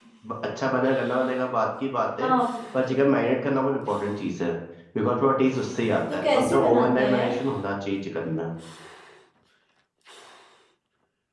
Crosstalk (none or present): present